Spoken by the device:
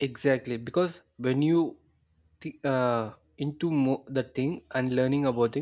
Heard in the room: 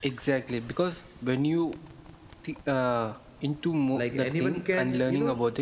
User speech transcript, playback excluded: like anyone can you know

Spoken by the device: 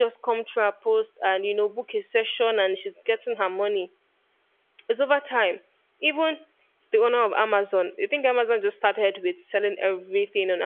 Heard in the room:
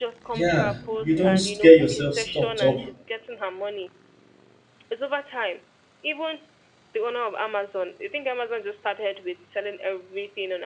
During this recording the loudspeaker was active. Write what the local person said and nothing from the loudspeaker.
yeah, you don't get yourself stopped up,

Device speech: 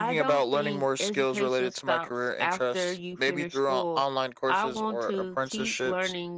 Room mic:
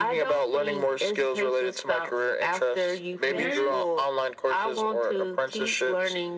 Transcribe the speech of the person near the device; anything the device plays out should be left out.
There's

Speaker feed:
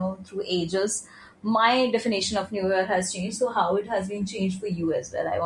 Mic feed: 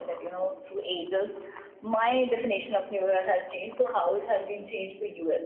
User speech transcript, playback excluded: none

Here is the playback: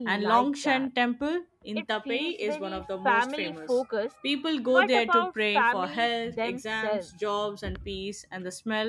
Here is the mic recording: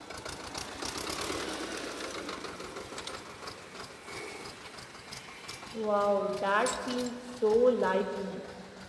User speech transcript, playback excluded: Wow, that feels so lively.

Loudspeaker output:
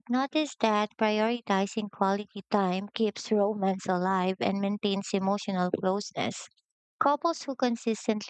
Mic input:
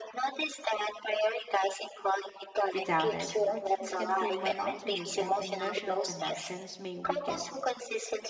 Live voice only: Without it, routines can feel monotonous and emotional connections may weaken.

